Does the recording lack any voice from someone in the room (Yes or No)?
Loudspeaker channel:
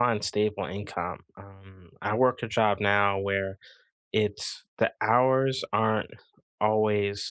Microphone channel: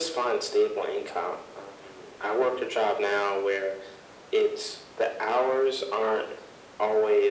Yes